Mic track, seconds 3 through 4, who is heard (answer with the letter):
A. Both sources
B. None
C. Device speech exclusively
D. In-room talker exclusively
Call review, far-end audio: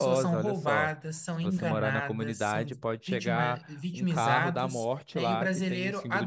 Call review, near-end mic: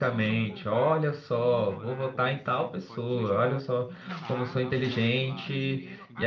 A